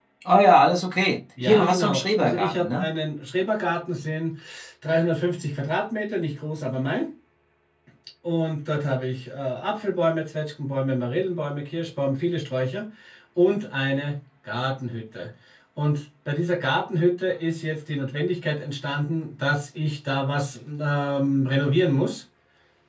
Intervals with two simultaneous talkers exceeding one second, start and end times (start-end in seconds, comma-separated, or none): 1.4-2.9